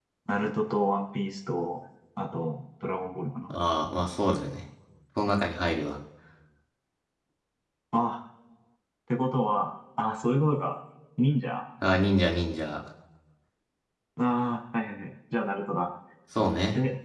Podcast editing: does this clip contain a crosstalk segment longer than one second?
No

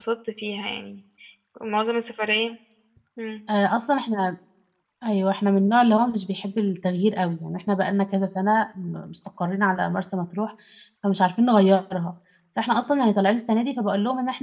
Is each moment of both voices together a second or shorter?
Yes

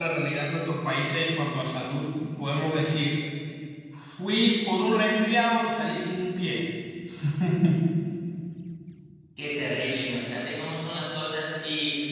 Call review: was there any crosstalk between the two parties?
No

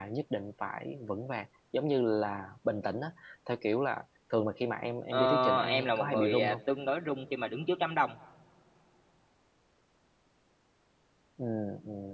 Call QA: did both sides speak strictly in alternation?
No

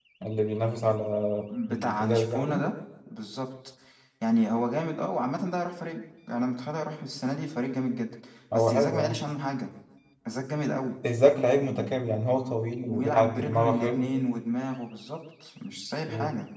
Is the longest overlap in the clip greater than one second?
Yes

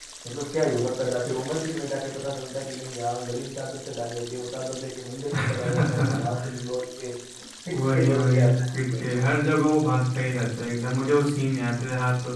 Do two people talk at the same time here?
Yes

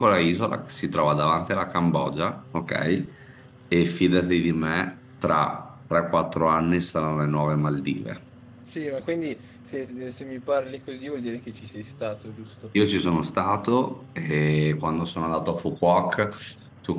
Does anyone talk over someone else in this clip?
No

